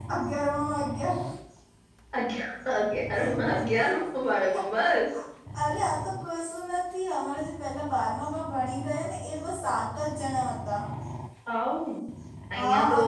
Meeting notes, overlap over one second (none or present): none